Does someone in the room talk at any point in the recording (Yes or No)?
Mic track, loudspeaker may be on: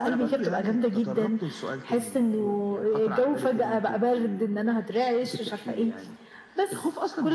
No